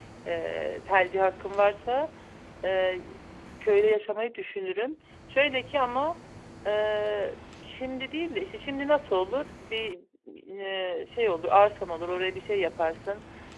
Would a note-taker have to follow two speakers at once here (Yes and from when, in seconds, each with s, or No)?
No